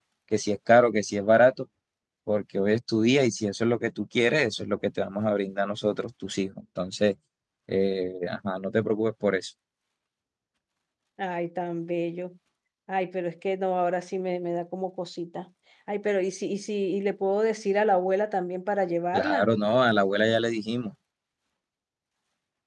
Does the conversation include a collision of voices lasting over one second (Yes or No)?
No